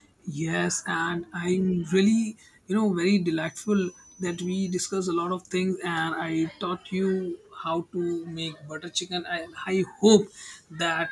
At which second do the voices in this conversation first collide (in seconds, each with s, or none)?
none